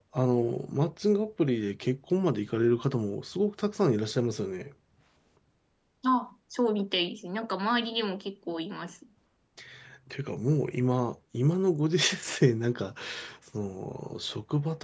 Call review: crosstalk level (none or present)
none